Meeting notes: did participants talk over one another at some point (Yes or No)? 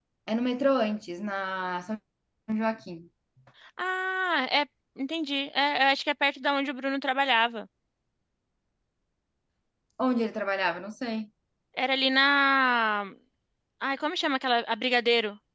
No